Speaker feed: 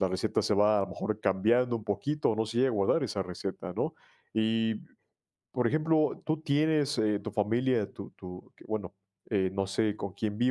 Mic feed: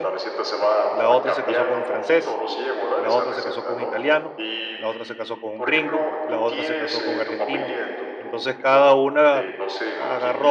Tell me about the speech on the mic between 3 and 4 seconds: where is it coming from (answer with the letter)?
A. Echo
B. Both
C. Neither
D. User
B